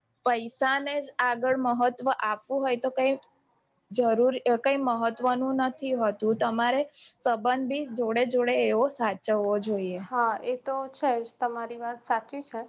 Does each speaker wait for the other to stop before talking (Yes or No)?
Yes